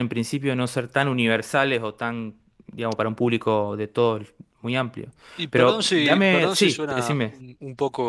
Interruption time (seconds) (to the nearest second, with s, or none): 6 s